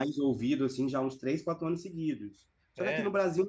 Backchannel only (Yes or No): Yes